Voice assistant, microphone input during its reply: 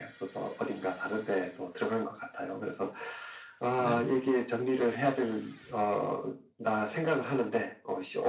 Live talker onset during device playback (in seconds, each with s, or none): 3.8 s